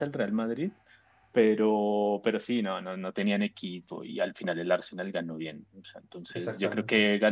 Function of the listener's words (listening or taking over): listening